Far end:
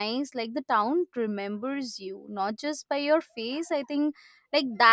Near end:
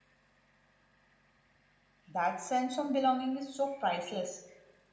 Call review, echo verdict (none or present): none